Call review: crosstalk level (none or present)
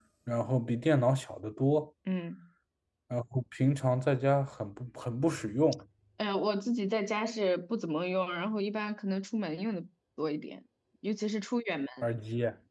none